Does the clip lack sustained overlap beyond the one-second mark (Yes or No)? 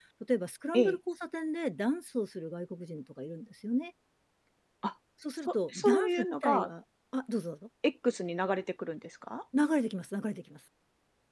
No